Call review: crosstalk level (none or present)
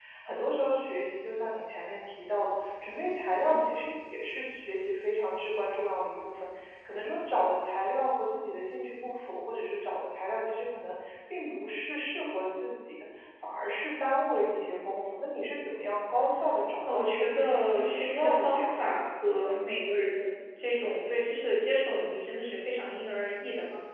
present